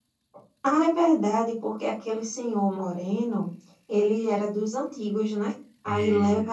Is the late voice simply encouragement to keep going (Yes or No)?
Yes